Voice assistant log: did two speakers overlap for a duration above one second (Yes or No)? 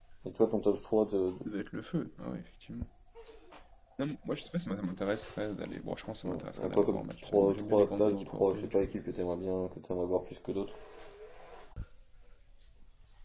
Yes